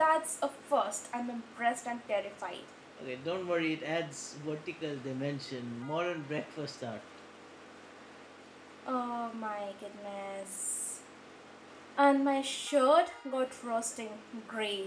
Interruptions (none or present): none